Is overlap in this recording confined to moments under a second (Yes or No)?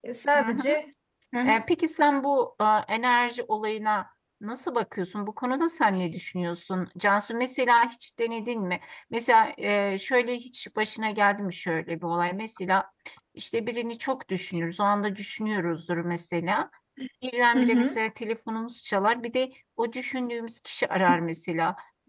Yes